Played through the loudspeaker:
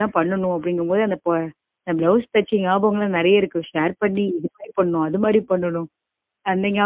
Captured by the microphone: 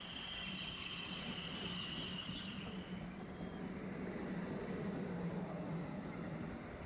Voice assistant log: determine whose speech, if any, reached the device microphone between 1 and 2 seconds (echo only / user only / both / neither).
neither